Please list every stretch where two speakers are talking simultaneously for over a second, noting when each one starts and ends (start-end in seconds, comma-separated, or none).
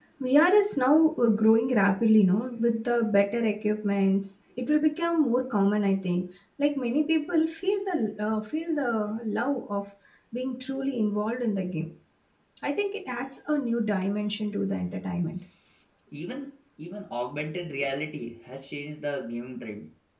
none